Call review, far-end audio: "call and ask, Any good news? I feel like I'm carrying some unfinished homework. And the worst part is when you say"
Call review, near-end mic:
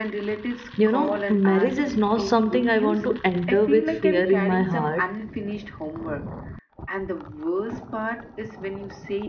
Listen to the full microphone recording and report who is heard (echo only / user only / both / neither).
both